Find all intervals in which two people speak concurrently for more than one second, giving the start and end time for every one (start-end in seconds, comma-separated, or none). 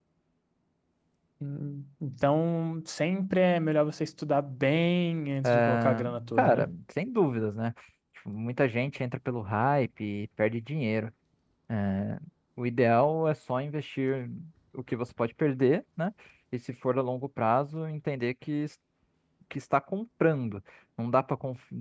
5.4-6.7